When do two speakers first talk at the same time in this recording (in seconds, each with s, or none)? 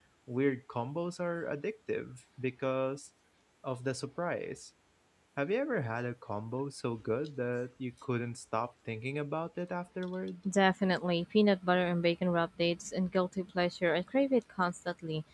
none